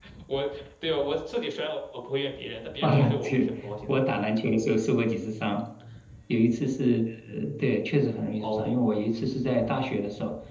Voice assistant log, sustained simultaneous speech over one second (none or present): present